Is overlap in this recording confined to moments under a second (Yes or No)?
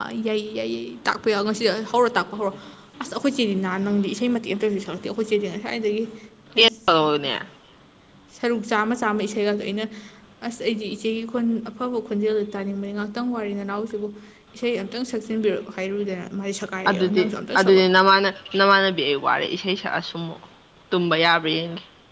Yes